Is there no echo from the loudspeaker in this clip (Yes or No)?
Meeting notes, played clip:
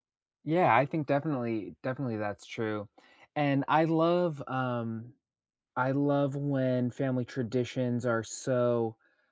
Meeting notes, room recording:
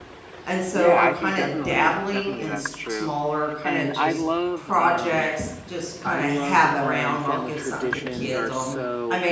No